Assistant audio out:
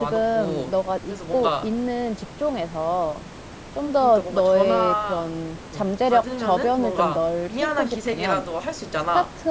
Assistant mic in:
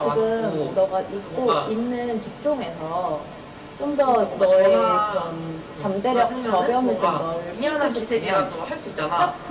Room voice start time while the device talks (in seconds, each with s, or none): none